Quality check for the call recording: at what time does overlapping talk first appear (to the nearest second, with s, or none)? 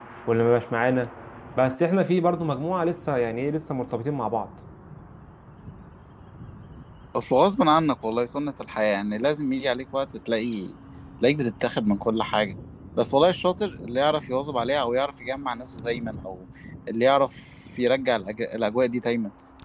none